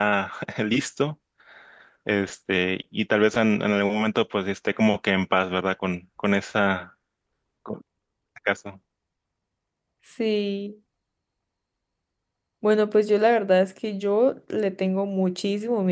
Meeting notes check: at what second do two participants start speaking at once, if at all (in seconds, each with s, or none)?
none